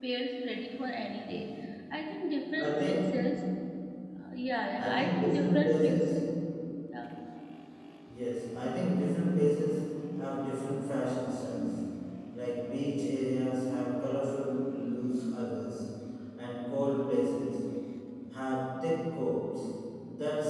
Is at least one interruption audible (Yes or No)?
Yes